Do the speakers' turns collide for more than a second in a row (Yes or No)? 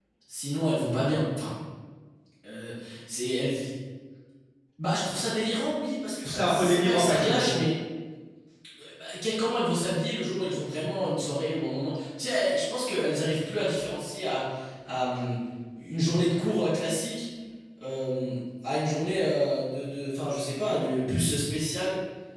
Yes